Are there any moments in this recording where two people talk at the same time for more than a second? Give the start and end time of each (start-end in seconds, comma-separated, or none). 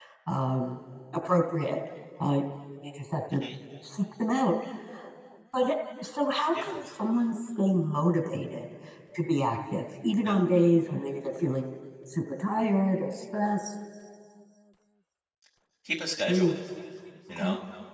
none